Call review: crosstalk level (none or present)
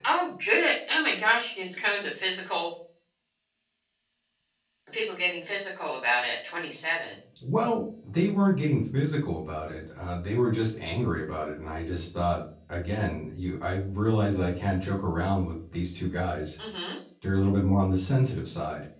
none